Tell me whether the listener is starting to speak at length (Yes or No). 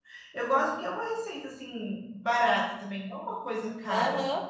Yes